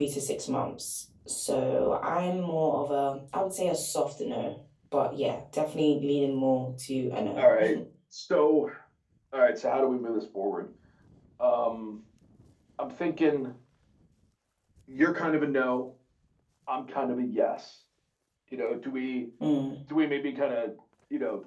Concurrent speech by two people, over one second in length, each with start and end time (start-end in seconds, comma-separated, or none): none